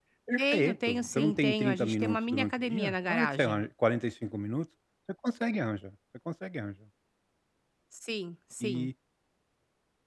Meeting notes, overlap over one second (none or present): present